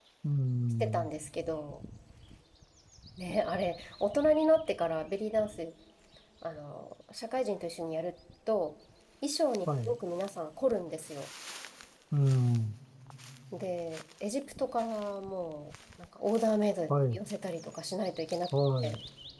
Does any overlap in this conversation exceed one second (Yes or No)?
No